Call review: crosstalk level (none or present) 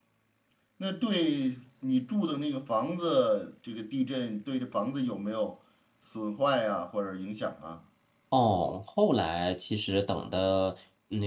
none